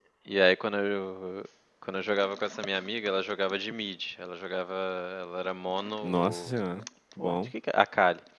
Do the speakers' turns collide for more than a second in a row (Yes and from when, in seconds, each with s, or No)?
No